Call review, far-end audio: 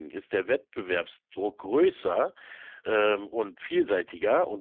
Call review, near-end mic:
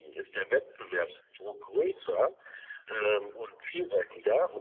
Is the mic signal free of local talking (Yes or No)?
Yes